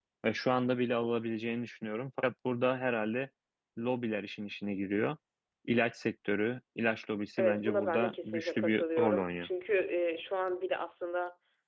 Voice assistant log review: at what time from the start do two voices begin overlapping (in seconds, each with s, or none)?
7.4 s